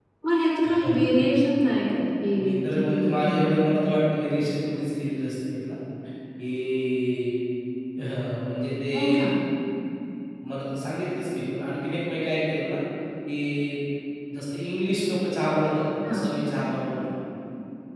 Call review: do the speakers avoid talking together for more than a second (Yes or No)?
No